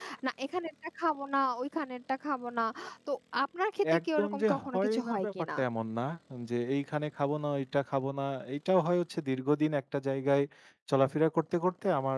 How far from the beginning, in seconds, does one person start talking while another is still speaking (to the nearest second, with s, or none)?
4 s